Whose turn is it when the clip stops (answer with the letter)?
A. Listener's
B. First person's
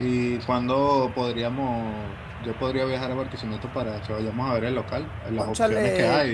B